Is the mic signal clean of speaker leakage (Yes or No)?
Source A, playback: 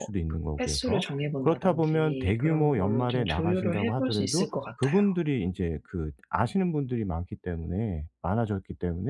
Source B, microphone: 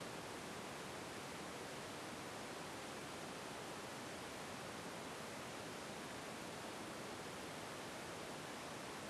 Yes